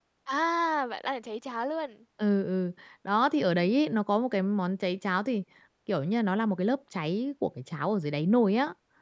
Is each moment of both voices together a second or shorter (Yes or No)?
Yes